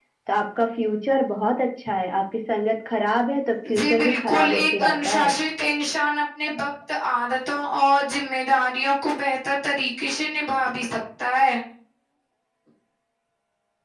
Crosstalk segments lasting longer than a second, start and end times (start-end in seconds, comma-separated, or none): 3.7-5.3